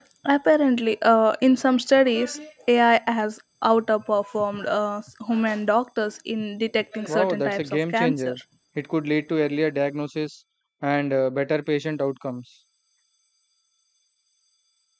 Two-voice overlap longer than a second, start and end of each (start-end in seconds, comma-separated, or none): 7.1-8.3